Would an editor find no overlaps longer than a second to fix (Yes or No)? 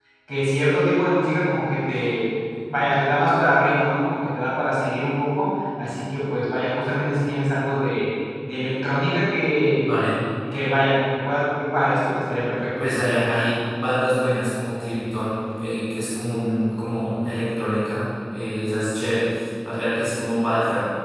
Yes